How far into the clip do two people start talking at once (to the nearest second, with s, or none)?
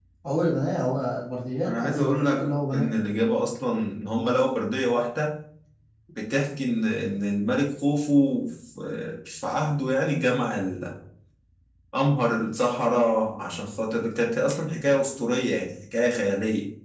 2 s